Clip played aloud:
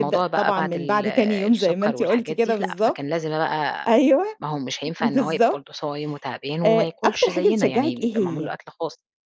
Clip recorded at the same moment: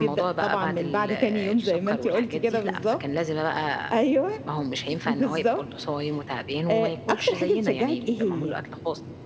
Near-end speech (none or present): none